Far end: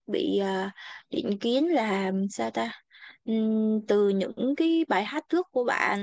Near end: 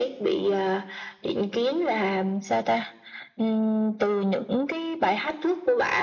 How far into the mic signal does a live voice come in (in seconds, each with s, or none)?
none